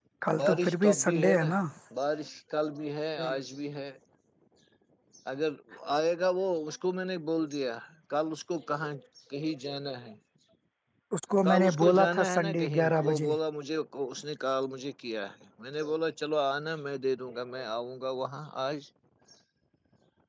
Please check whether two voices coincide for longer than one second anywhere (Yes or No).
Yes